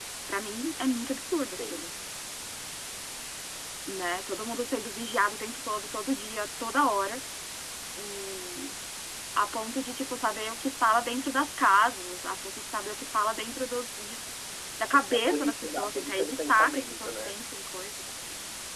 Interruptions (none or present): present